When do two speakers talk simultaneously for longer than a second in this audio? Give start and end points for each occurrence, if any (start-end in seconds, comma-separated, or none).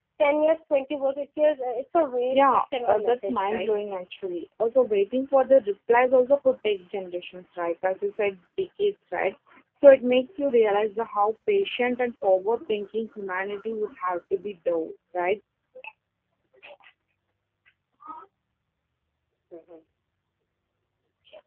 2.3-3.7